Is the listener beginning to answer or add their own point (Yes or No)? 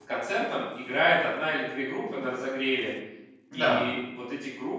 No